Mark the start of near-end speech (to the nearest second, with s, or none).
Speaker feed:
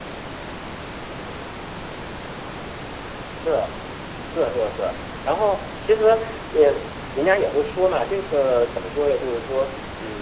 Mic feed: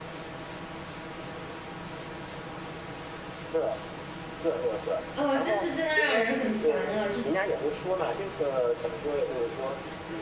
5 s